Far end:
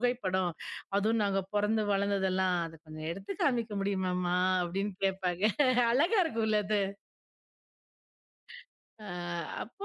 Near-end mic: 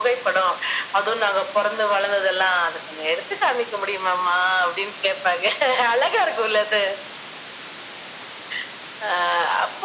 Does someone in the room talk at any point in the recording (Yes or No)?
No